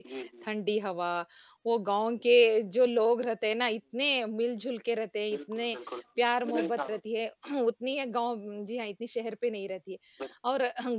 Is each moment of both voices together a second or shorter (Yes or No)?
Yes